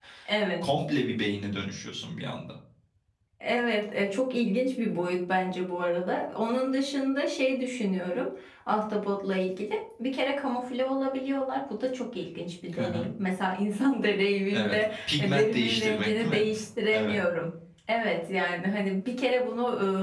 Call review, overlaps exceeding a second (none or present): present